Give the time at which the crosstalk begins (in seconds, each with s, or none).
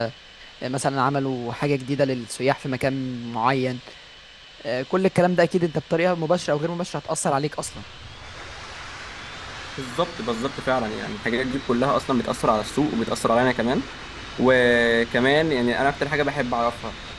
none